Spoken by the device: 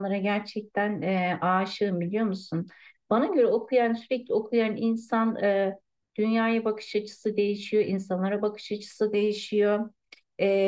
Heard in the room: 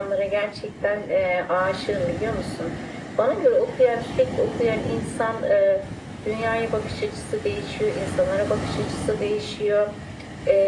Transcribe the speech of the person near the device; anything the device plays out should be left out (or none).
none